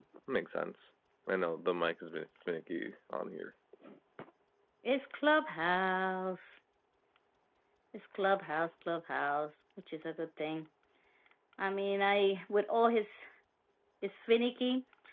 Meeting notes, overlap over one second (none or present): none